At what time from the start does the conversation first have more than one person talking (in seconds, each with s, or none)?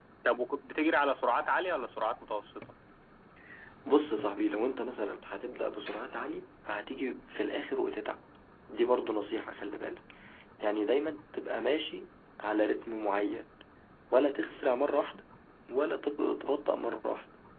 none